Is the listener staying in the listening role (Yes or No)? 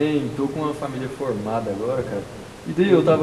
Yes